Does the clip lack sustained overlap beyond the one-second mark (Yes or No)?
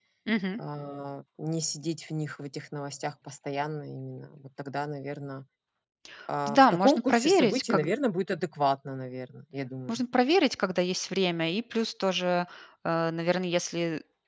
No